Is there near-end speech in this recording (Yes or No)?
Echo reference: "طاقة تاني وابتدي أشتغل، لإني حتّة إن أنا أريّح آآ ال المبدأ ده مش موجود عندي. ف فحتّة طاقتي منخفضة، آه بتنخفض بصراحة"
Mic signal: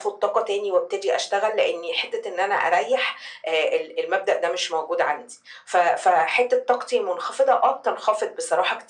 No